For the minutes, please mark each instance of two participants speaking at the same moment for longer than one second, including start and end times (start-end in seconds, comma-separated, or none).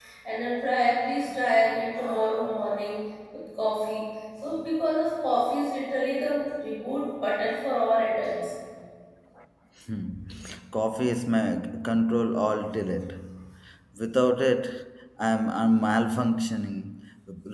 none